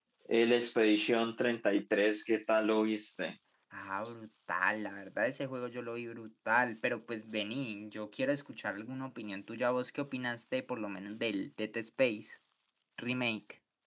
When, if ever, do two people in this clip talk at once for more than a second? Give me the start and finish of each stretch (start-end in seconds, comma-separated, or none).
none